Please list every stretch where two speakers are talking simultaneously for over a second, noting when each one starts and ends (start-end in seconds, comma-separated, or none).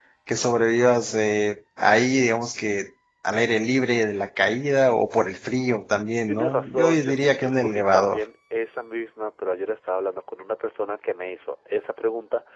6.3-8.2